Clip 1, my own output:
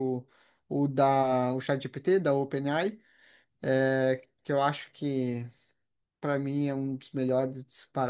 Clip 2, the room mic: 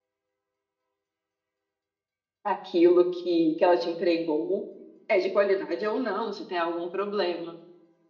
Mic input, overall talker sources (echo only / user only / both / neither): user only